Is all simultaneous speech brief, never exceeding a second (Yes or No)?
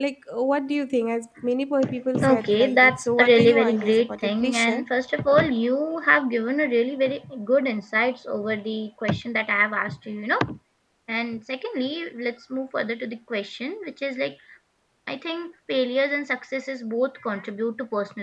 No